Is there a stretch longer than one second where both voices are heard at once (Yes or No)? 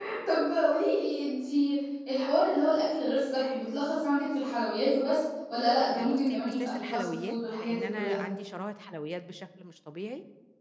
Yes